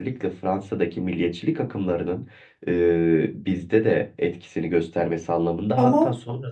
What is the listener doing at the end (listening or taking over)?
listening